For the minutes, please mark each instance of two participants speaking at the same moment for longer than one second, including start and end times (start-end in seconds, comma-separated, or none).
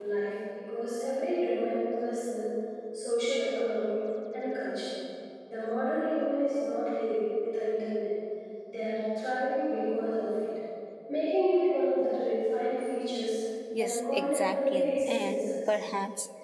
13.8-15.8